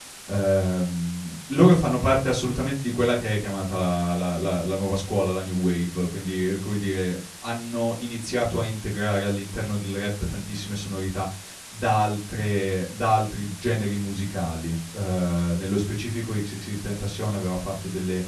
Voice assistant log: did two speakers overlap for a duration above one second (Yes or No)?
No